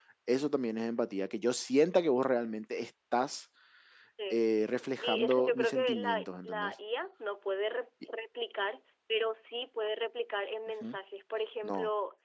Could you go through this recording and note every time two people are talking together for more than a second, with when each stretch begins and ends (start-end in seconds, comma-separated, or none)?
5.0-6.7